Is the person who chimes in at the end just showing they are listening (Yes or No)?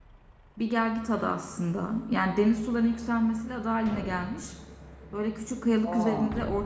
Yes